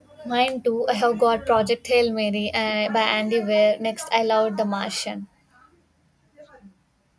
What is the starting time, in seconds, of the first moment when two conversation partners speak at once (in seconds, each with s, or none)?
none